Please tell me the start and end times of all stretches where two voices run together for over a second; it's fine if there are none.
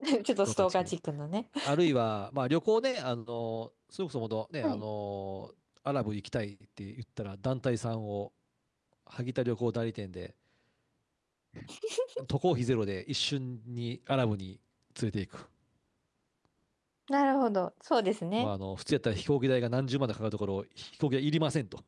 none

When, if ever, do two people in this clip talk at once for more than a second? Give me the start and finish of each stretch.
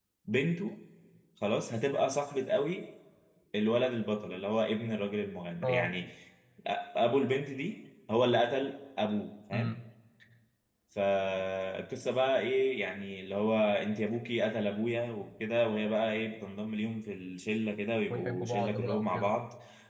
18.1-19.4

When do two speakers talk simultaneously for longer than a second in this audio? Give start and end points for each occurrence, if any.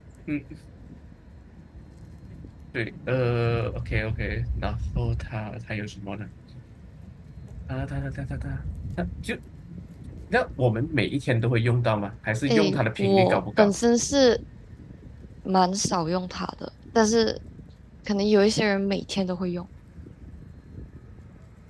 12.5-13.8

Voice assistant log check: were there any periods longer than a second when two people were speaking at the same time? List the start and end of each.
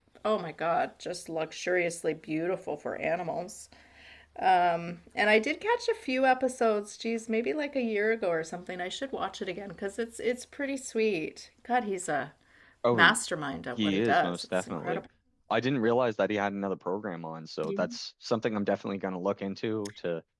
13.8-15.0

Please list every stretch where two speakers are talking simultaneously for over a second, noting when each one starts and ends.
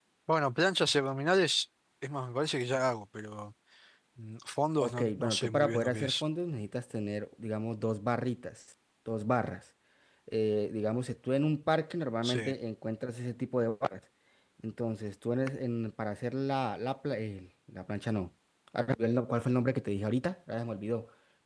4.8-6.2

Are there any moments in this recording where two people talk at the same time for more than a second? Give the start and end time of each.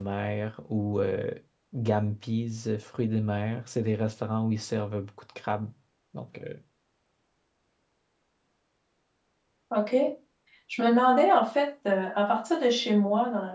none

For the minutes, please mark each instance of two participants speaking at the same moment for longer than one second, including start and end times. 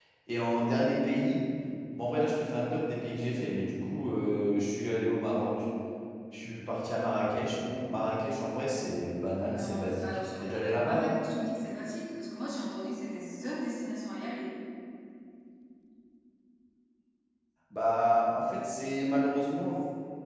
9.4-11.1

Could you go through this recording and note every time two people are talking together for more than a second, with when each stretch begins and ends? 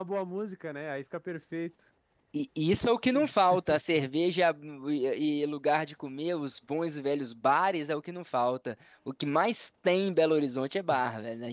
none

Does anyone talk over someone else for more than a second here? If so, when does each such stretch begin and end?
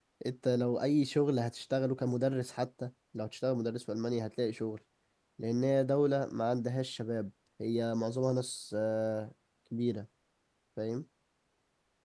none

